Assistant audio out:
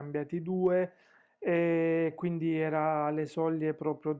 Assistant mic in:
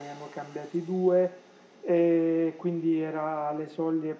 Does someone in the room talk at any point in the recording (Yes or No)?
No